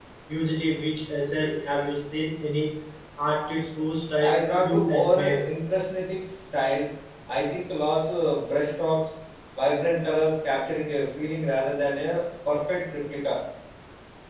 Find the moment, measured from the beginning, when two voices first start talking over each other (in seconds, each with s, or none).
4.2 s